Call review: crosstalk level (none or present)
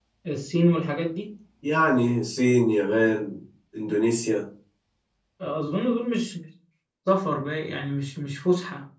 none